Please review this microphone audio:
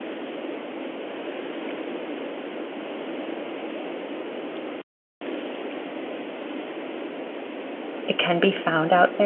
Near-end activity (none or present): present